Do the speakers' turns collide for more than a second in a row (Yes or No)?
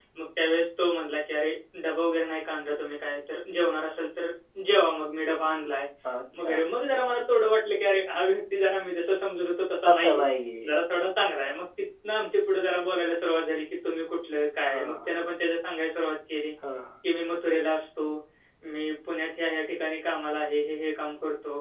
No